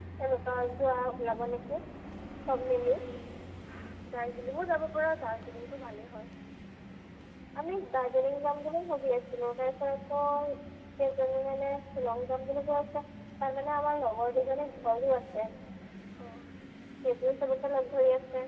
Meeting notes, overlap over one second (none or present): none